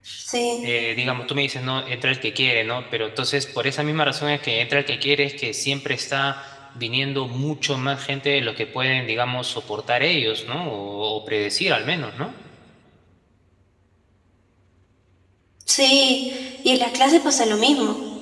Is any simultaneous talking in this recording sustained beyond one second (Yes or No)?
No